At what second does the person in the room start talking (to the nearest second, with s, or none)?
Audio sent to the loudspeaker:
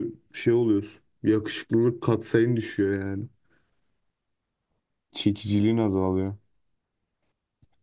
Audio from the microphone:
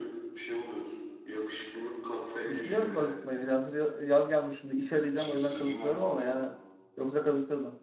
2 s